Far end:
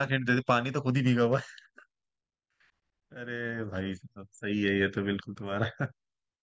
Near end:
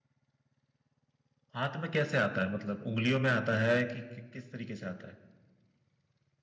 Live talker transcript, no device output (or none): हाथ में कैसे आता है मतलब उंगलियों में आता है कि कि- किस तरीके से आता है